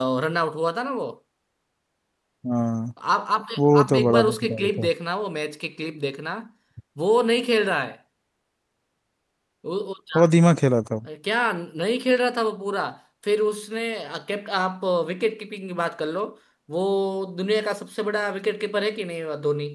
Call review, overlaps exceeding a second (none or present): present